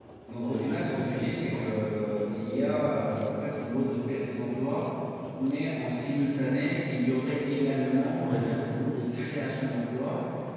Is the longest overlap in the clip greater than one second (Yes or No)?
Yes